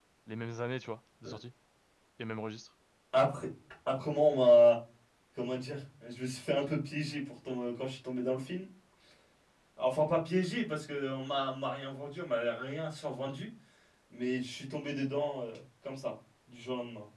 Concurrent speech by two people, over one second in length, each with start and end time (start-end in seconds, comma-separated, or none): none